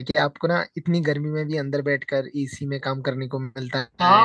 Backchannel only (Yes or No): No